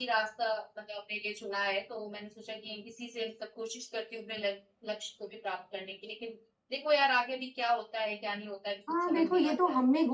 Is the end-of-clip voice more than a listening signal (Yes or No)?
Yes